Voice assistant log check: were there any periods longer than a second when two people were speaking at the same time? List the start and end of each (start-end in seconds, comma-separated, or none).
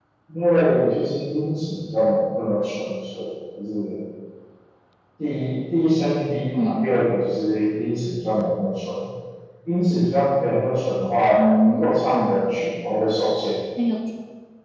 11.4-12.6